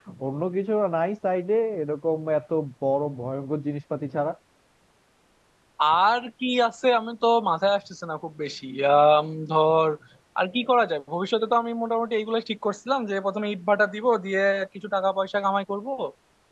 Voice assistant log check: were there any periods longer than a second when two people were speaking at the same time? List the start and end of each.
none

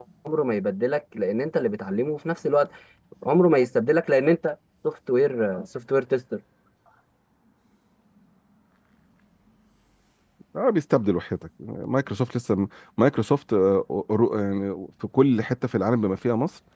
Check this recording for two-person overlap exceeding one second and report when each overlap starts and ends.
none

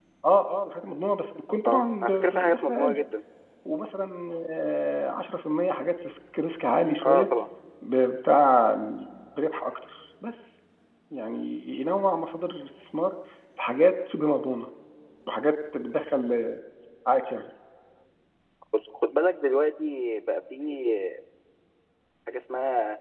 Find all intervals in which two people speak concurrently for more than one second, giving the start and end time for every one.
1.6-3.0

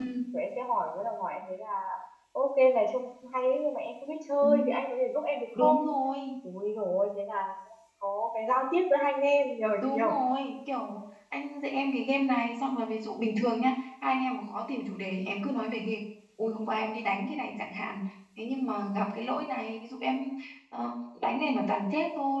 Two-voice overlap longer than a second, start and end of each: none

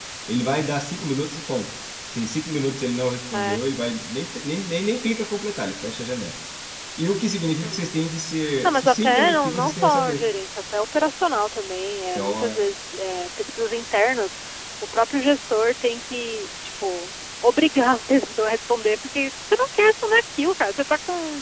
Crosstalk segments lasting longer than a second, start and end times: 8.6-10.2

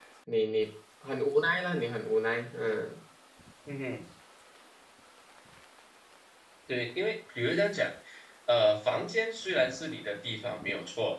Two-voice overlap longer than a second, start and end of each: none

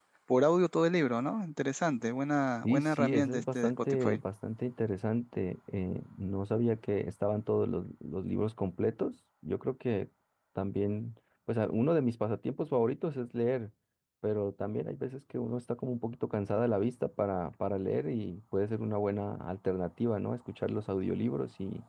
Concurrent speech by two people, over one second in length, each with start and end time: 2.6-4.2

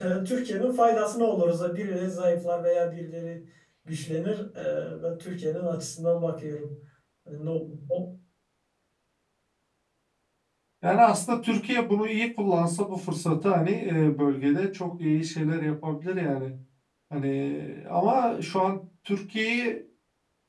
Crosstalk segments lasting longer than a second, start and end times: none

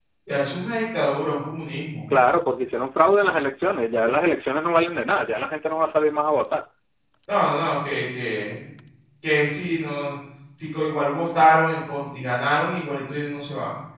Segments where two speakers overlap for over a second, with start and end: none

